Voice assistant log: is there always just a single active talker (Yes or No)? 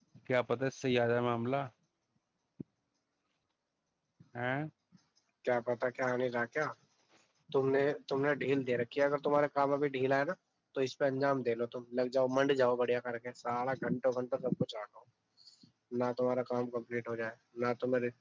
Yes